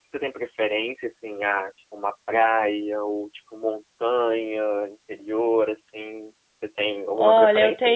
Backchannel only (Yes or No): No